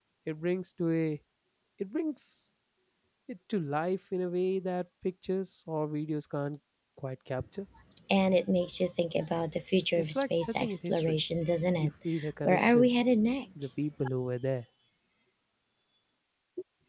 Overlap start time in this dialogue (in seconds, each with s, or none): 10.0 s